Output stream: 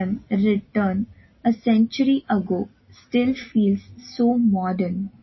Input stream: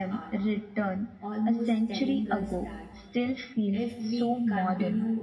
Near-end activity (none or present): present